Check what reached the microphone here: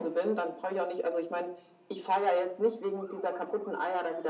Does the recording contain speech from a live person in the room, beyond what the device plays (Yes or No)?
No